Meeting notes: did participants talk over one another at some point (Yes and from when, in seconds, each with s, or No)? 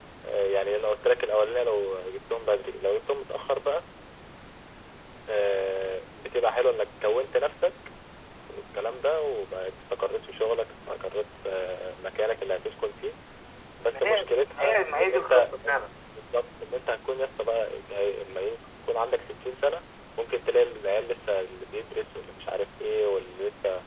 Yes, from 13.9 s